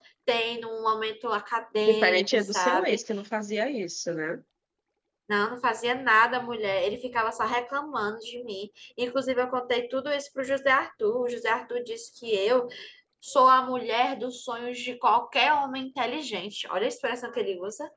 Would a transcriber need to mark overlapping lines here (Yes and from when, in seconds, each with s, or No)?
Yes, from 1.8 s